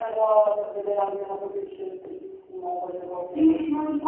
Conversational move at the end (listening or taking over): taking over